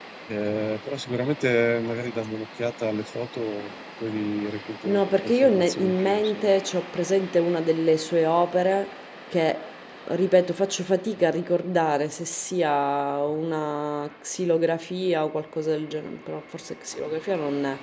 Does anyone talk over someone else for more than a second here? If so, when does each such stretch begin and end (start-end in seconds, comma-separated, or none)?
4.8-6.6